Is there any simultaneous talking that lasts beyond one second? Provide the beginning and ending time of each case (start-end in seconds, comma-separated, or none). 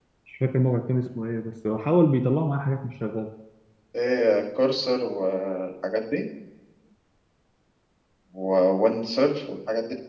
none